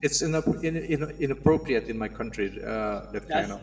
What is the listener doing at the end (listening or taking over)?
taking over